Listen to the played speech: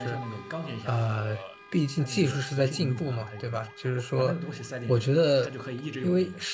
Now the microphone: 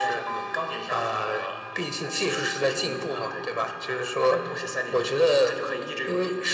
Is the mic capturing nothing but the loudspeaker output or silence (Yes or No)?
Yes